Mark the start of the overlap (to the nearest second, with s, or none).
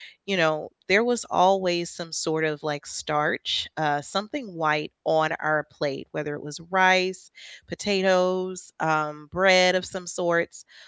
none